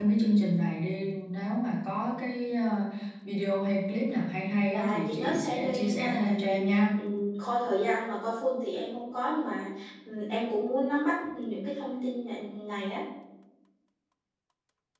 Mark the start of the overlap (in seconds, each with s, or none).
4.7 s